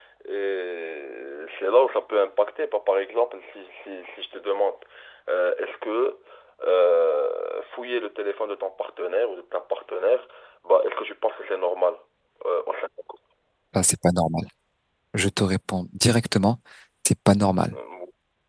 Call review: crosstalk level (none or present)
none